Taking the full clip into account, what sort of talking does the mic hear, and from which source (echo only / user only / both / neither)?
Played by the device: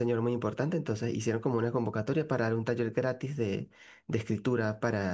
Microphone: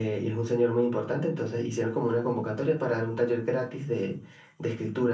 echo only